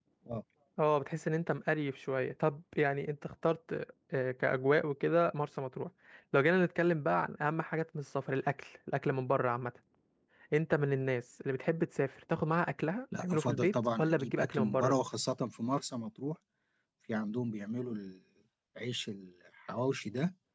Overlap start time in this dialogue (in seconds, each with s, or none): 13.1 s